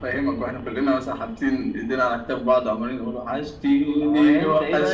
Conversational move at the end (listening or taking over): taking over